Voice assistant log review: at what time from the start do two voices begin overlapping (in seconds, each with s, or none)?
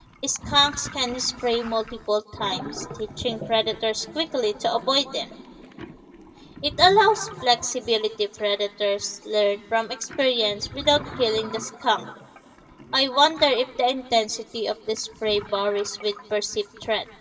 none